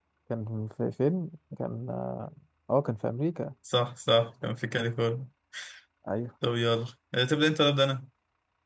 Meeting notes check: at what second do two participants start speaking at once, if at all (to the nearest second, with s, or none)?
none